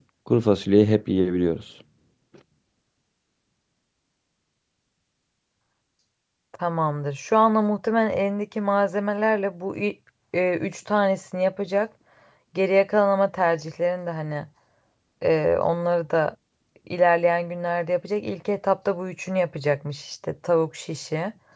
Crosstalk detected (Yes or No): No